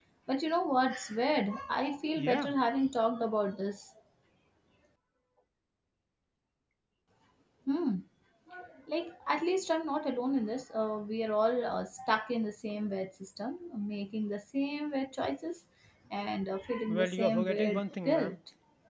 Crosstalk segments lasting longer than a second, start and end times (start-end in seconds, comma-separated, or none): 16.9-18.4